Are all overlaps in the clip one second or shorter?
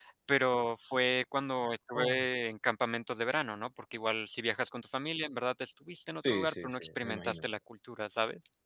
No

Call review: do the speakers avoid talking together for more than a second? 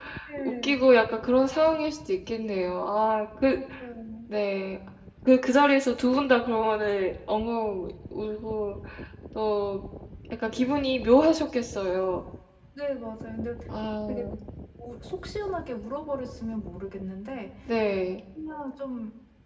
Yes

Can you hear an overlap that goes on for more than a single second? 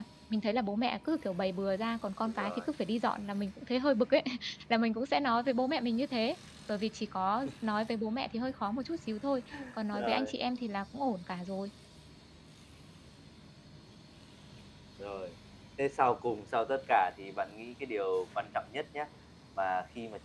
No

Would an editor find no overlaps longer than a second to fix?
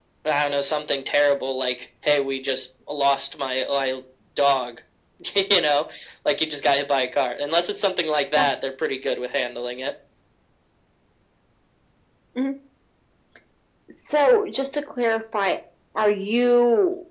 Yes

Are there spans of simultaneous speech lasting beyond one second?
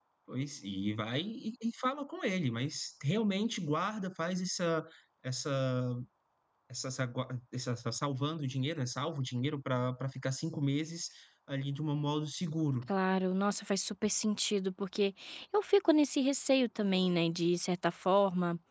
No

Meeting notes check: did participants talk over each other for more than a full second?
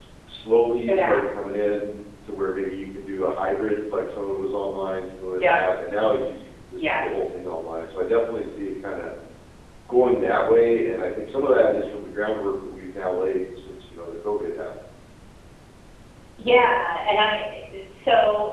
No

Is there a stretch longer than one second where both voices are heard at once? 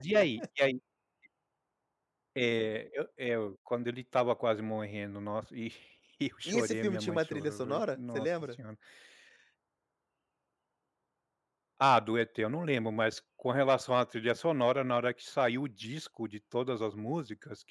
Yes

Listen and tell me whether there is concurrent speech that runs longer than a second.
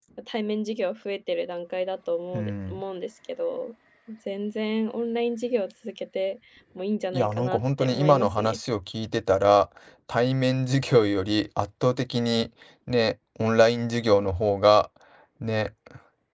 Yes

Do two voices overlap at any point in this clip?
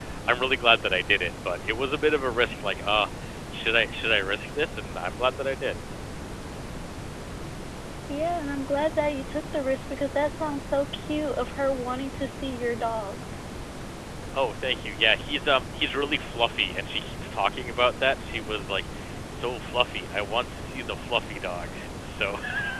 No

